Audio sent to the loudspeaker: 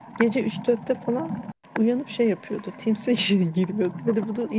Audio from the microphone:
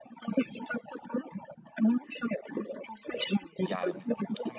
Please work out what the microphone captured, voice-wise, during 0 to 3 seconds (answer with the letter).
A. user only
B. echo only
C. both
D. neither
B